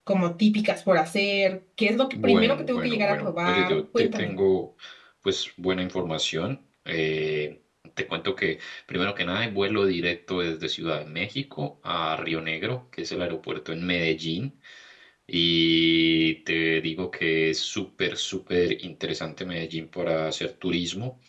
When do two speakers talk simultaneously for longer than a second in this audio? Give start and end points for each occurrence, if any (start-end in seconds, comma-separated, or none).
2.2-4.3